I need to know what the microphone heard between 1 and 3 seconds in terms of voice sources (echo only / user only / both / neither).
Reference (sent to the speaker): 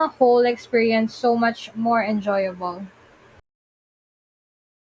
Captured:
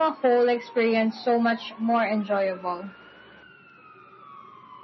echo only